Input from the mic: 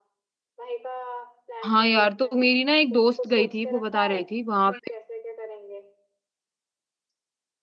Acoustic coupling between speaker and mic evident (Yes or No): Yes